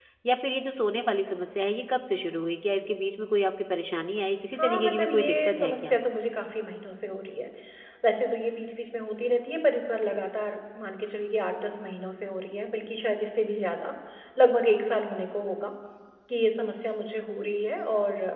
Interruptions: present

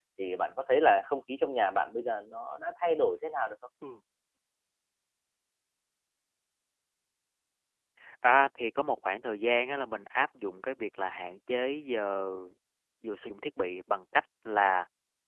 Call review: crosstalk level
none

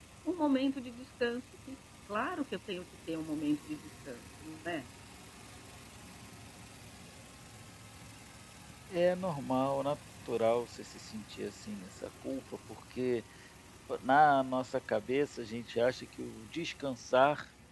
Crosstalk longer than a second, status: none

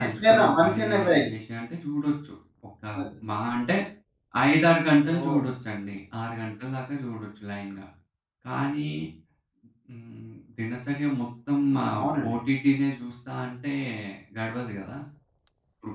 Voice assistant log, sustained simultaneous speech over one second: present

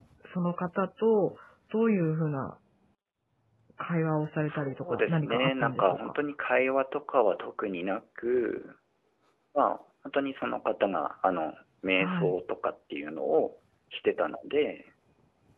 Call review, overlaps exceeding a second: present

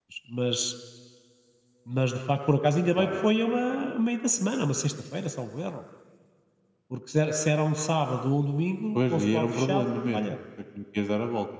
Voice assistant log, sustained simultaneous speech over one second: present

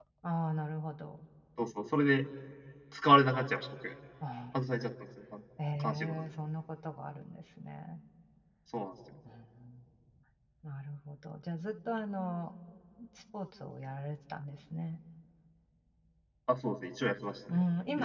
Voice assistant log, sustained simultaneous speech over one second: none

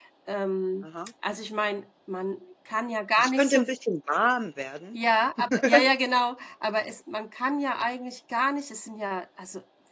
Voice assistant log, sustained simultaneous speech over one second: none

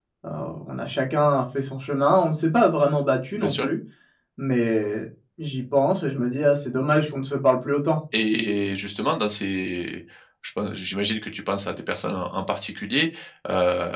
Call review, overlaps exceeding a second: none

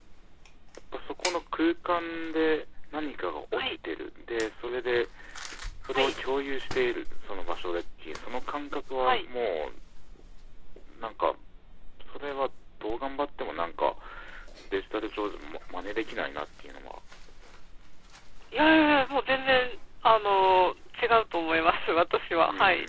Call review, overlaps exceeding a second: none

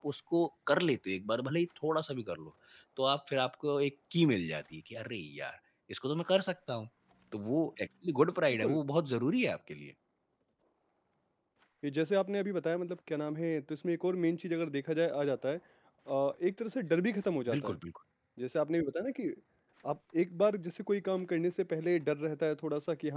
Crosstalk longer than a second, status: none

